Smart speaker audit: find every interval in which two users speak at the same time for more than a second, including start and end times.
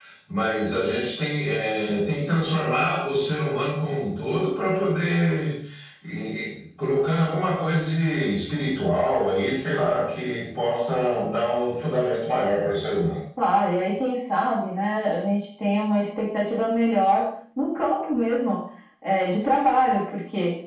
none

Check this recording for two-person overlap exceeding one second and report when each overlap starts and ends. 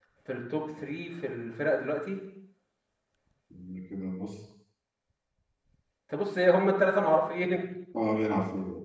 none

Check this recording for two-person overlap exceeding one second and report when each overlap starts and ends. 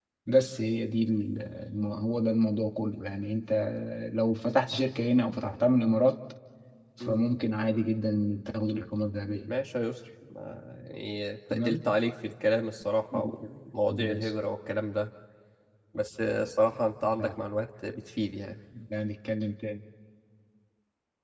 none

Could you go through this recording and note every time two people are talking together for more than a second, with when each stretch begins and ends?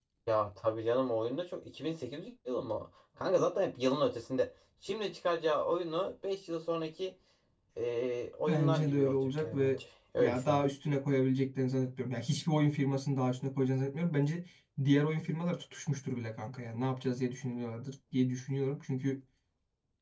8.5-9.8

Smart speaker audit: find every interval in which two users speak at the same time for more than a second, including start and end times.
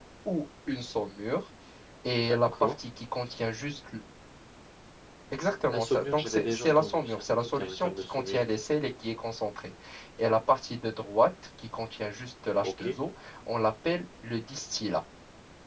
5.7-8.4

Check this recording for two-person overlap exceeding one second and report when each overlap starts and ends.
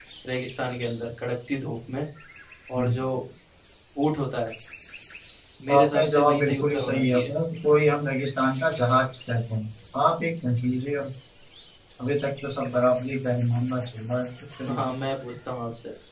5.7-7.3

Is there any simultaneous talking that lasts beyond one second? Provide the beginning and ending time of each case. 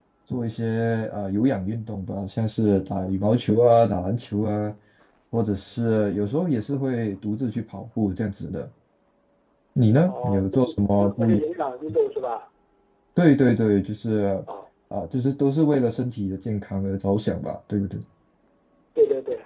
10.0-11.4

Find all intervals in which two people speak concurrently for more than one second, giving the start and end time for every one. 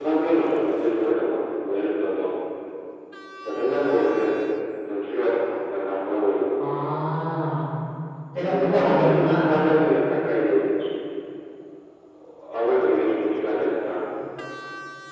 8.4-9.6

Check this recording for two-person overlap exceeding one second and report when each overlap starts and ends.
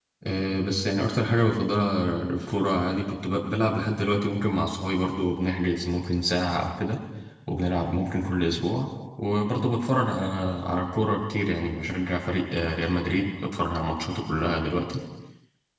none

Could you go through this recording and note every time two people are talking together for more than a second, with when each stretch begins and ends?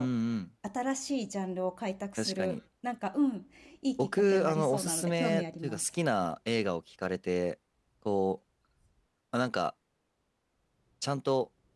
4.0-5.9

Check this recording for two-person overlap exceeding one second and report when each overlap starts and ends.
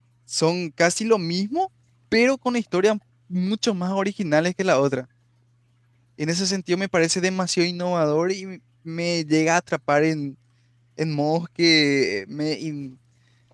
none

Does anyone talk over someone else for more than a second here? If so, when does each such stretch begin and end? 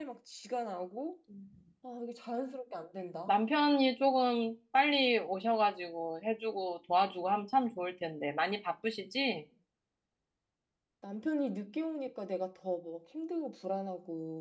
none

